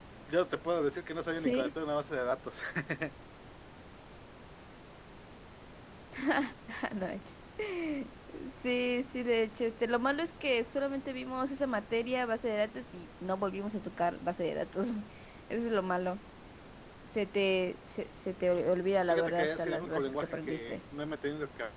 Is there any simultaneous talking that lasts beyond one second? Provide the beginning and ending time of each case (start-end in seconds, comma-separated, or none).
19.1-20.8